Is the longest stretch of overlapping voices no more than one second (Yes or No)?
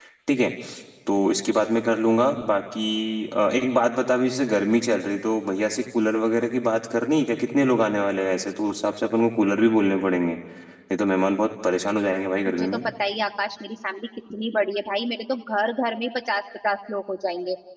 Yes